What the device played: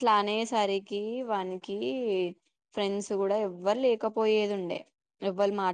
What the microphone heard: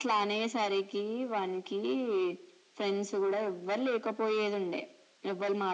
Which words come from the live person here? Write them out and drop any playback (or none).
none